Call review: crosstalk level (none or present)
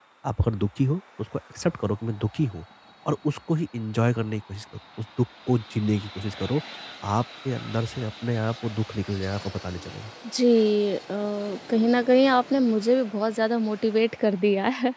none